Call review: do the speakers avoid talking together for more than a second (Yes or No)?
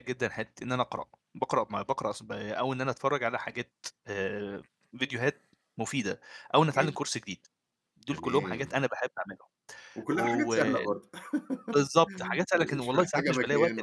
No